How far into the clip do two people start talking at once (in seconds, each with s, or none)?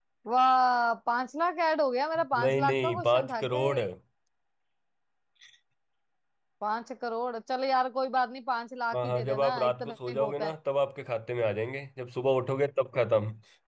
2.4 s